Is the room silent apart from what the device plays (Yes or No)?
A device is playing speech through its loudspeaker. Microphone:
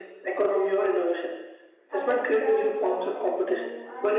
No